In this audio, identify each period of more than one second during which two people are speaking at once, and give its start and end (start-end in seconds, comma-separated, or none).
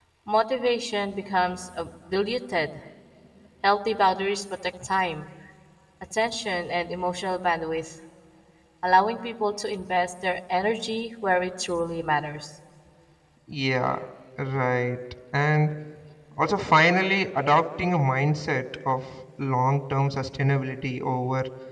none